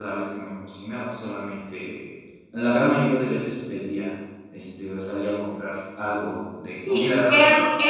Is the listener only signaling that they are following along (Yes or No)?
No